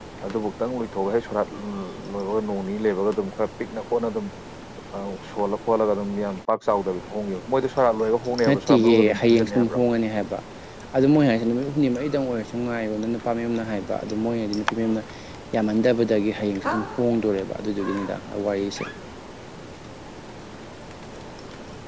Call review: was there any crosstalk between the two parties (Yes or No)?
Yes